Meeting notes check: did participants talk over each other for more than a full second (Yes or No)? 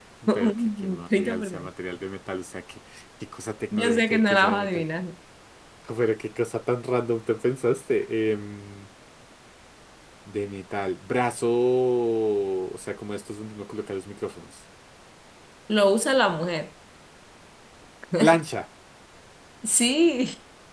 Yes